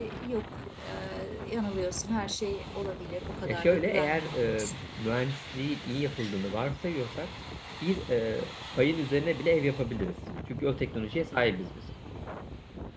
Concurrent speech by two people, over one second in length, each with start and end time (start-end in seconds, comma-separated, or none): 3.4-4.7